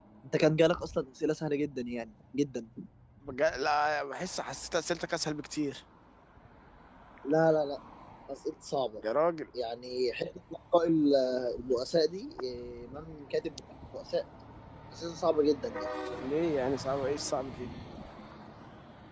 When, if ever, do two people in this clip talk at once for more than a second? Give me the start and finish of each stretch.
none

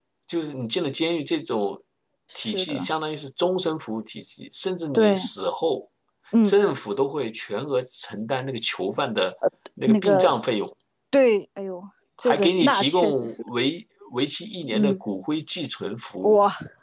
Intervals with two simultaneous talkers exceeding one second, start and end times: 12.2-13.5

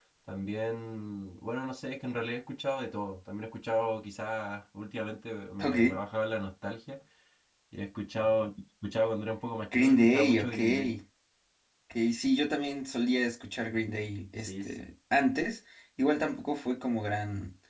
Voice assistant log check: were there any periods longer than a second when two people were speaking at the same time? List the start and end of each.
9.7-10.9

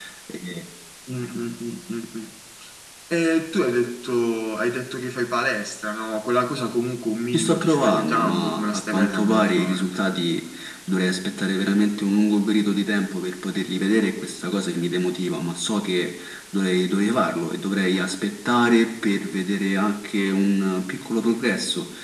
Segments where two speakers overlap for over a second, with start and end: 7.3-9.9

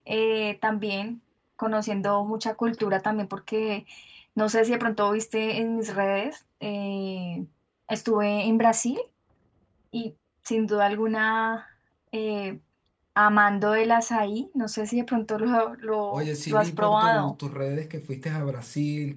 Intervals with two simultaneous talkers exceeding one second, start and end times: 16.1-17.4

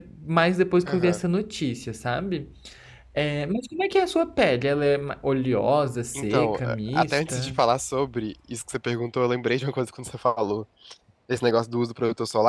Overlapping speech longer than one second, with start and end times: 6.2-7.5

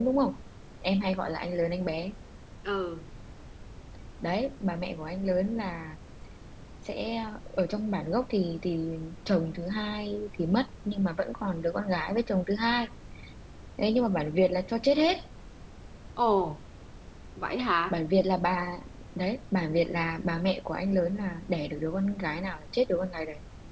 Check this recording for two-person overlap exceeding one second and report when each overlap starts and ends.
none

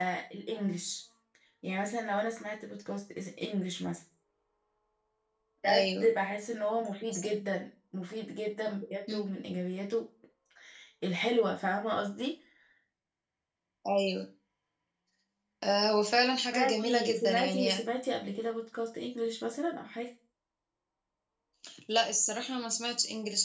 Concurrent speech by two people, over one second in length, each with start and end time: 16.5-17.8

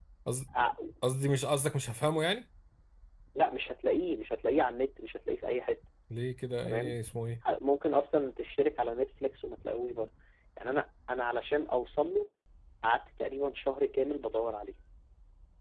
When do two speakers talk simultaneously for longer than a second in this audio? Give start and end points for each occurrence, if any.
none

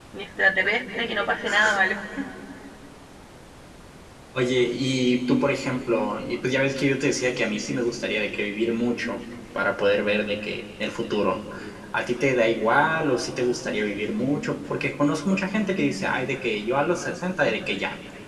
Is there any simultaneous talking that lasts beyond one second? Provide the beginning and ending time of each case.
none

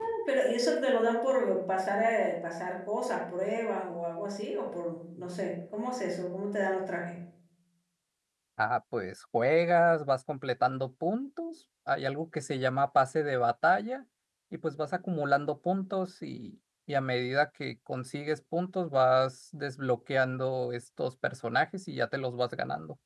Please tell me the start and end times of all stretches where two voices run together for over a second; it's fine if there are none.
none

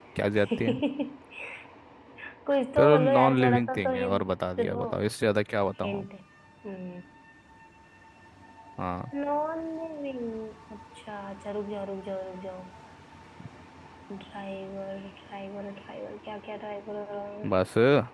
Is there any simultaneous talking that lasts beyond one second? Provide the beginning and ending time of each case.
2.8-4.3

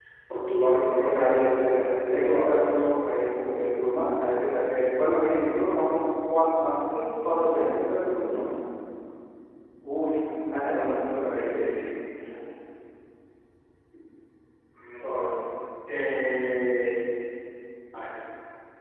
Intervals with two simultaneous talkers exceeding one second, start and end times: 0.9-2.8

